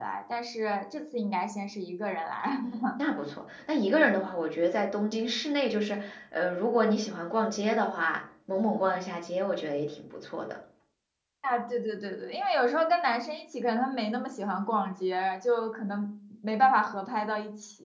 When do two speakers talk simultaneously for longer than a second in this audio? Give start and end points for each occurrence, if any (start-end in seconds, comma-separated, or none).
none